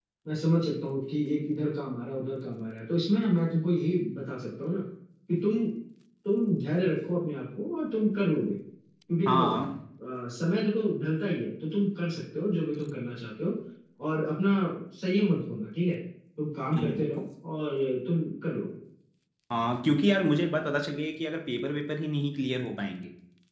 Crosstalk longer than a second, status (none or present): none